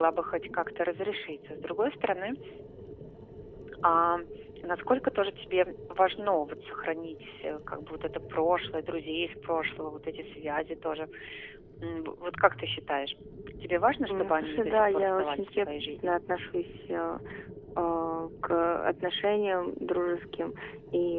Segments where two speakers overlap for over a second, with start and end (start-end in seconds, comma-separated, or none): 14.1-16.1